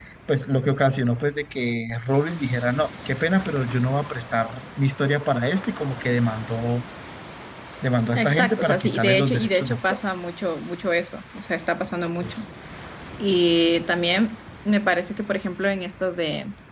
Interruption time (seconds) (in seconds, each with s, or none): 8.2 s